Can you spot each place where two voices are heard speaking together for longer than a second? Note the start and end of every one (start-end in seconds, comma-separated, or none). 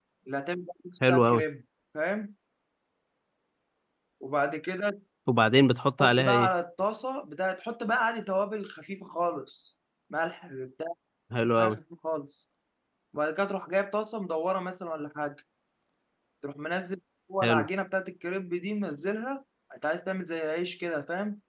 none